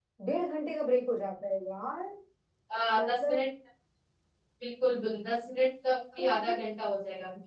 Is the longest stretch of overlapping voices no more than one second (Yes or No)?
Yes